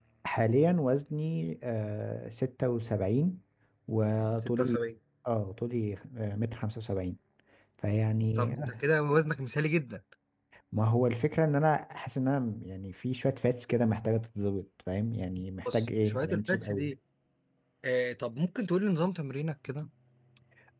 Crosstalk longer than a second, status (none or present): present